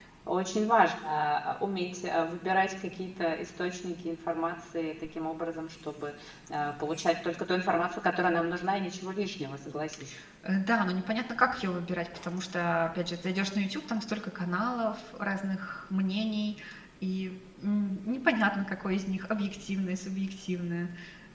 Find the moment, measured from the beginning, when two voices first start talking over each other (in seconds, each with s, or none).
none